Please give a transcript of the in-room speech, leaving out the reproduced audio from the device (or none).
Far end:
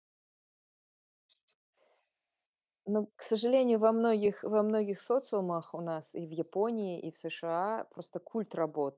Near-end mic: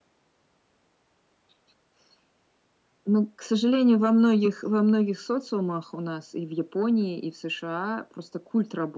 none